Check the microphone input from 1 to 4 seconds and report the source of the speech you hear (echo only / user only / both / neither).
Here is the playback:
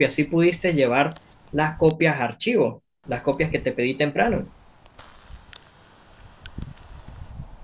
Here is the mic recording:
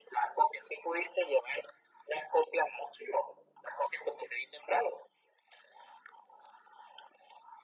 echo only